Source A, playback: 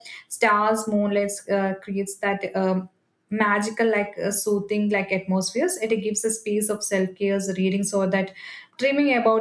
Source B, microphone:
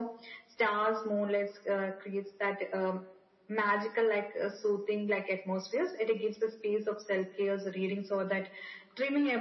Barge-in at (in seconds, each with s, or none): none